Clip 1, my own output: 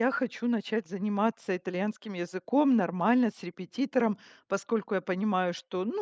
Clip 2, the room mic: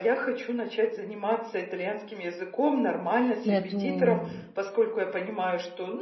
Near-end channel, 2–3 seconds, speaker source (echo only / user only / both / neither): echo only